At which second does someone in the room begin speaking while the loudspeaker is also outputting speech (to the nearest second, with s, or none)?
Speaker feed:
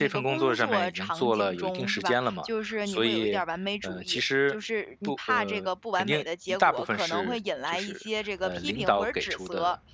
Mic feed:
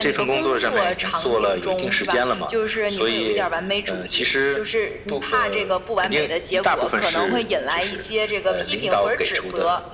none